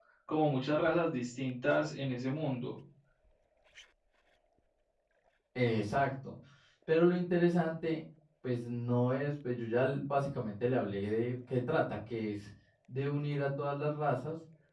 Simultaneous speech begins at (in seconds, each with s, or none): none